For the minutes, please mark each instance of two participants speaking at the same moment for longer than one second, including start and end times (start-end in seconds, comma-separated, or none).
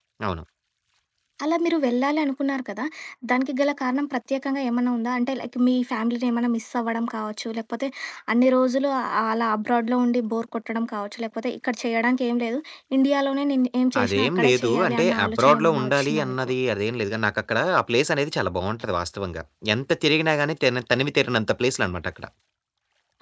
14.0-16.5